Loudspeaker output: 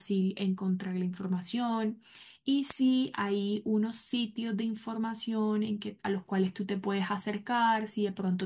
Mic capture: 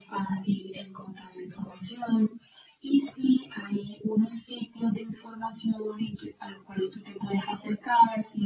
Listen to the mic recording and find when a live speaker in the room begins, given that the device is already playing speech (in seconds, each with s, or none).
none